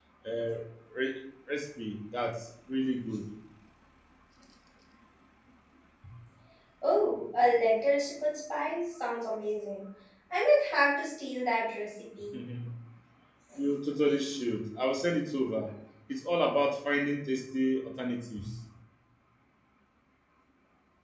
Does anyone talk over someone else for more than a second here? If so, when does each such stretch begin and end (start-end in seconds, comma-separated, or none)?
none